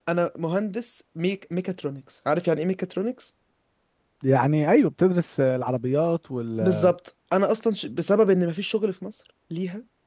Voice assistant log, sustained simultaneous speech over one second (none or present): none